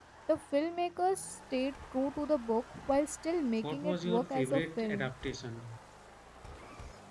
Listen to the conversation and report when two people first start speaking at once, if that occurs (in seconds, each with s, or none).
3.6 s